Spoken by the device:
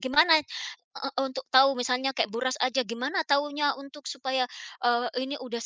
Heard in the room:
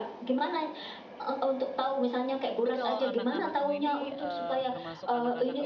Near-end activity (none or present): present